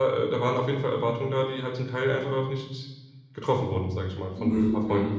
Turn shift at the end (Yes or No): Yes